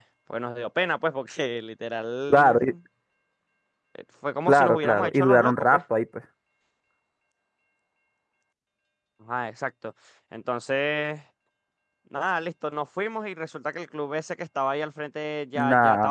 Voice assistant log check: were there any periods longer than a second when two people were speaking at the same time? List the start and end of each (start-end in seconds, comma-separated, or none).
4.5-5.8